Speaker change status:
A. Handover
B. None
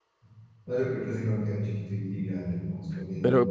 A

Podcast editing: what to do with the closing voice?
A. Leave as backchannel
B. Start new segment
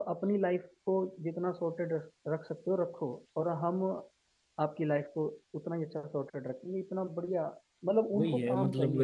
B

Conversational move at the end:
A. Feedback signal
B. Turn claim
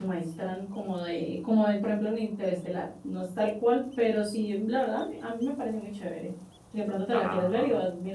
A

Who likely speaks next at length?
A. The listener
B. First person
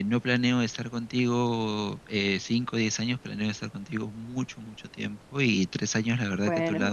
B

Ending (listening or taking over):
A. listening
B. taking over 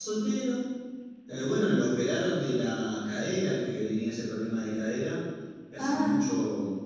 A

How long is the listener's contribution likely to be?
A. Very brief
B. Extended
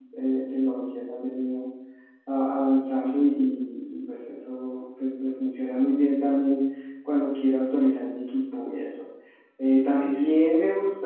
A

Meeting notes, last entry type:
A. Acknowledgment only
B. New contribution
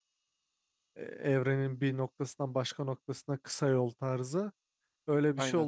A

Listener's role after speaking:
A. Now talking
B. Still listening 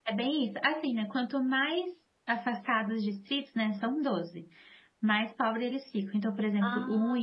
B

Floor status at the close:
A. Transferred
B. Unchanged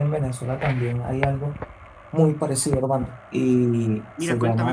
A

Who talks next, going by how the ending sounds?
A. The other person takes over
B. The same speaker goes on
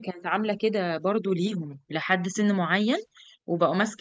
B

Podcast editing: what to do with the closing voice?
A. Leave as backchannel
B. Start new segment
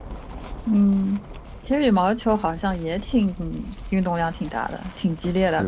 B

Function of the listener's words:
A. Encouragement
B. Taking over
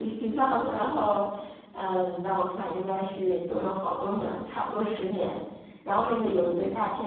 A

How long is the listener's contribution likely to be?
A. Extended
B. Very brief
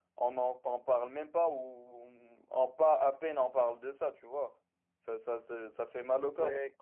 B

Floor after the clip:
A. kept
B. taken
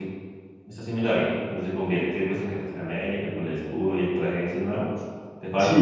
B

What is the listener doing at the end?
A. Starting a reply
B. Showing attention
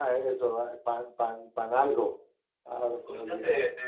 A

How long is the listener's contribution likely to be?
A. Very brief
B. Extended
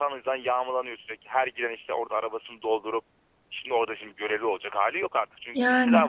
A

